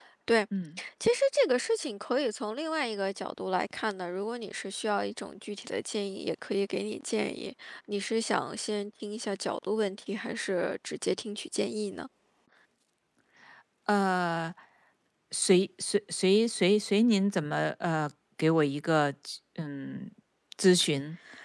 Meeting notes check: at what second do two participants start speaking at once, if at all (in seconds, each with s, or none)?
none